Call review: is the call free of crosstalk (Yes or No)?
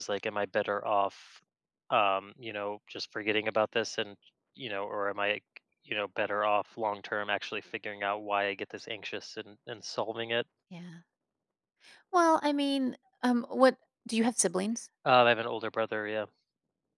Yes